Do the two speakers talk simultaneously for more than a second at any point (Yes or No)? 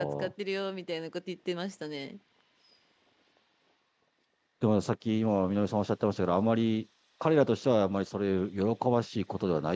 No